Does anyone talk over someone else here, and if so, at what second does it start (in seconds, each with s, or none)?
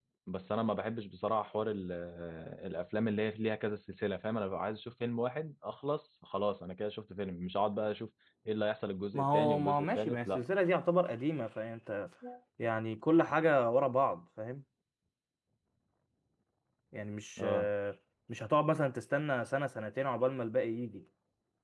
9.1 s